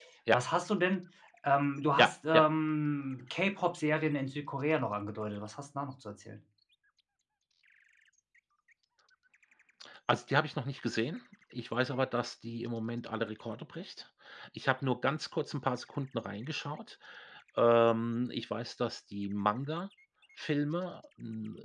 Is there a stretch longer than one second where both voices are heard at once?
No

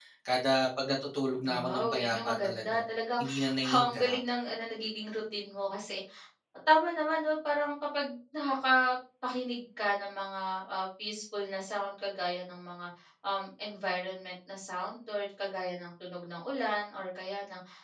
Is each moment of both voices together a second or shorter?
No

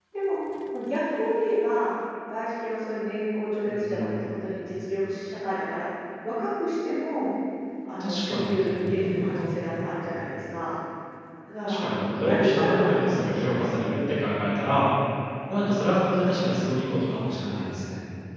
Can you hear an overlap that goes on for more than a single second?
Yes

